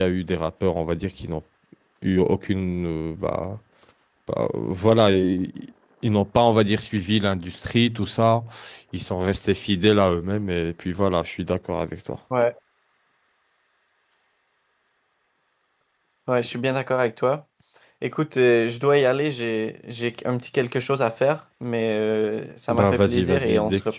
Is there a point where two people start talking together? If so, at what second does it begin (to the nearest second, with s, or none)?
23 s